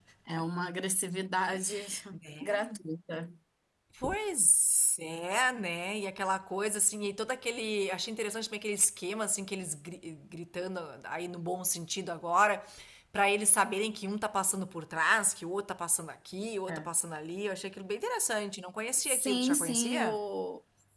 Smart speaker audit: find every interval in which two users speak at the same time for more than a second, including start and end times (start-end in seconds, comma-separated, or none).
18.9-20.2